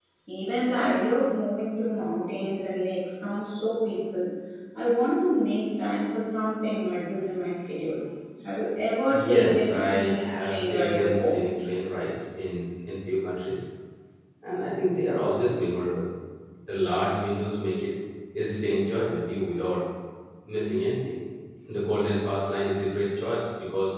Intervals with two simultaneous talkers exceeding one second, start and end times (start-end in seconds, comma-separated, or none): 9.1-11.4